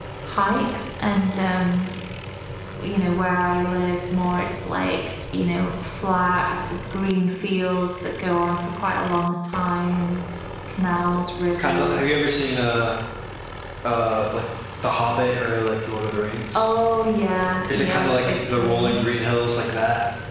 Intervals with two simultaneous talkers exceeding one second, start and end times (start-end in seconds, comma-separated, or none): 17.7-19.0